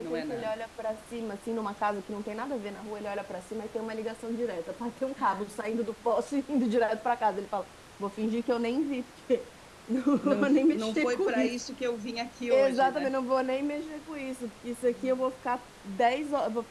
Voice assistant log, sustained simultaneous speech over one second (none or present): present